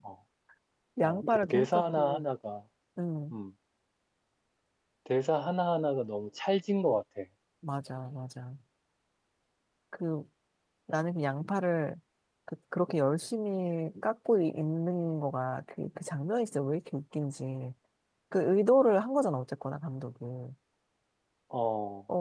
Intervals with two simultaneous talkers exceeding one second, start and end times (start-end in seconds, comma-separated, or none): 1.0-2.2